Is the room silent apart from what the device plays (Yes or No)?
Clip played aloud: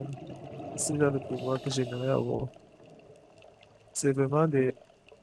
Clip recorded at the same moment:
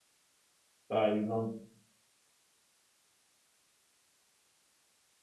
No